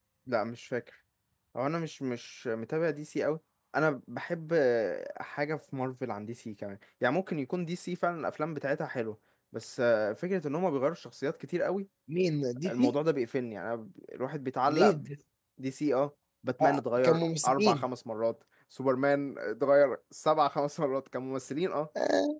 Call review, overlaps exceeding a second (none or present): present